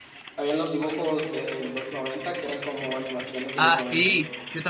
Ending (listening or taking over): taking over